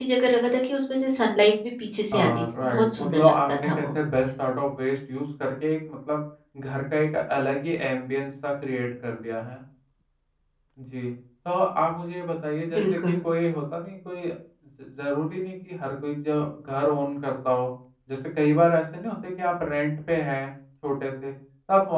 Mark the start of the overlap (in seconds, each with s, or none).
2.1 s